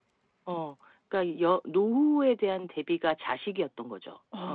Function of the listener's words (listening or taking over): taking over